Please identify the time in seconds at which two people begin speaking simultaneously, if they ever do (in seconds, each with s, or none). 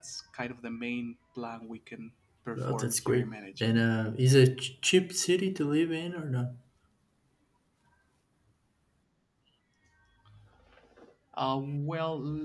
2.5 s